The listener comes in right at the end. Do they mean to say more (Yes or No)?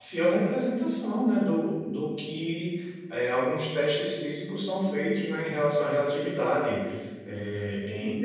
No